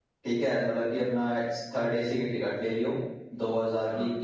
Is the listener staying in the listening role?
Yes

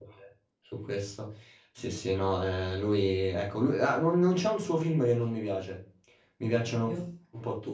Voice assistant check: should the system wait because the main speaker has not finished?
Yes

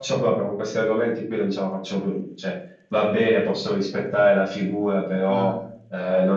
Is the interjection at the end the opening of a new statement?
No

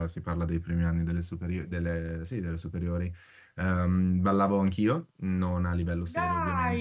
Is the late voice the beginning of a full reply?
No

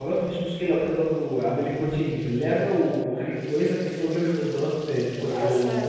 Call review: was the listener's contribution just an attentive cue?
No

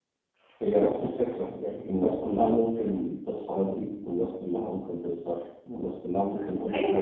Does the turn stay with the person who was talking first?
No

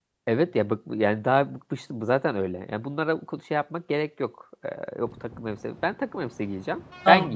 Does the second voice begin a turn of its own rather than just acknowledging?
Yes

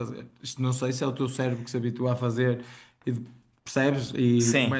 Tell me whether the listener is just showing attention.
Yes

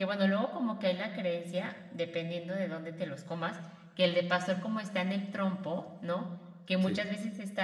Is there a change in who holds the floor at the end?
No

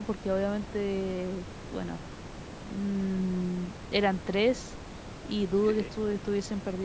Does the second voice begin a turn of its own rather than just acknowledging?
No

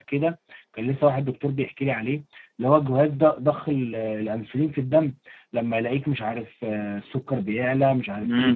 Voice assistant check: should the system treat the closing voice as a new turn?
Yes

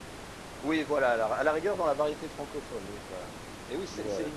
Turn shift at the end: No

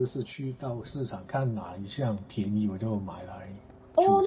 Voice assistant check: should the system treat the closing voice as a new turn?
Yes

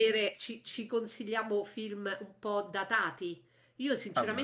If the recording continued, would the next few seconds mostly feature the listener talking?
No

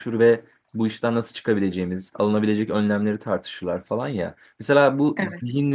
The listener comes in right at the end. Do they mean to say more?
No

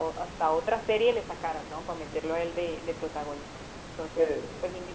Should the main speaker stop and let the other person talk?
No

